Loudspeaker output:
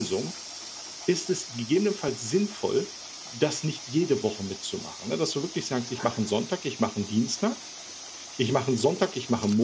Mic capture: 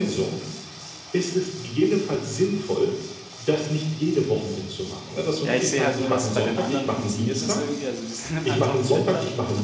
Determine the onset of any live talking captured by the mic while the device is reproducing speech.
5.4 s

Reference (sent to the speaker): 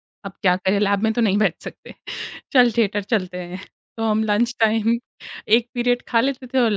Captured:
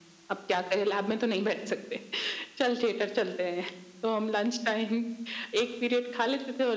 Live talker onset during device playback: none

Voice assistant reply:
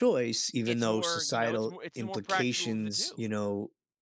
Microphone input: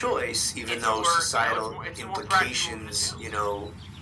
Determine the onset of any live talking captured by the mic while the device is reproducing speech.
none

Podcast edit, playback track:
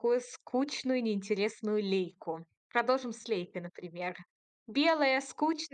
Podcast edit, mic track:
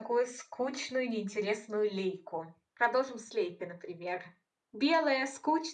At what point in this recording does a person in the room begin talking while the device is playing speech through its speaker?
none

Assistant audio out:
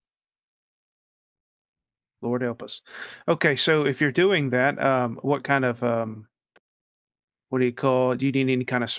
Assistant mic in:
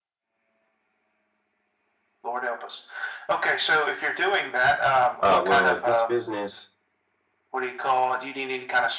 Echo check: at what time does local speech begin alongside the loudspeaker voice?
5.2 s

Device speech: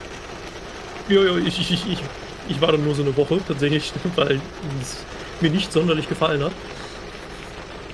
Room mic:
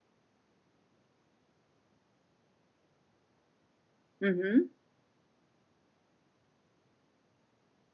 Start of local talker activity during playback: 4.2 s

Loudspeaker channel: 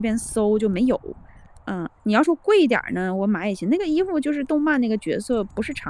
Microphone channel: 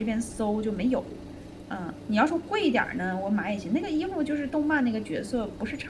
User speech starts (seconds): none

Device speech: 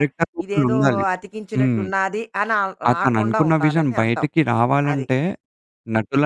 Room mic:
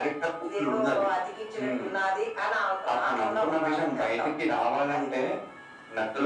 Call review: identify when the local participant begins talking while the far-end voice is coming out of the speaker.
none

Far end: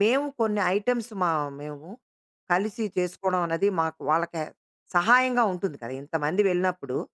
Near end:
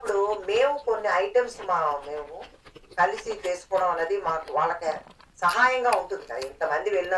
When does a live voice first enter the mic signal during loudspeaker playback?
none

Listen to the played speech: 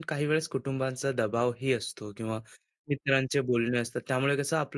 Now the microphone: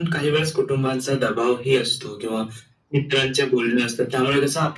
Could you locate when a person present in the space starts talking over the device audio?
none

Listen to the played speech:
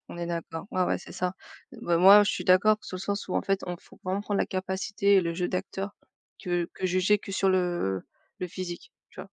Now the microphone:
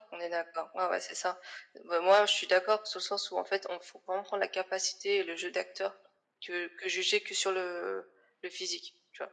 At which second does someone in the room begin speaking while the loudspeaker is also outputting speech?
none

